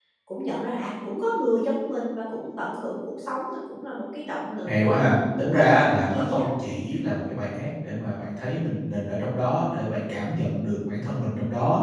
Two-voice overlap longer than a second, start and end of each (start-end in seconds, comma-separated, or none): 4.7-6.5